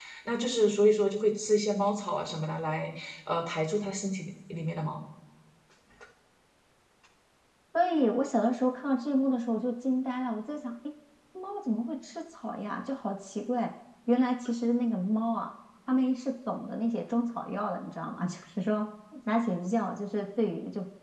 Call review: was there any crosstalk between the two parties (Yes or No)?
No